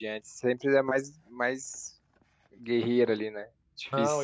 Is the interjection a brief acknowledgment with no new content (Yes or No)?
No